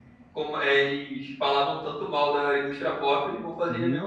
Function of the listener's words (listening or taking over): taking over